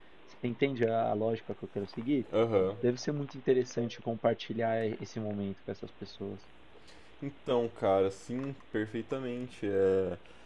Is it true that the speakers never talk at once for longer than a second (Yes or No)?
Yes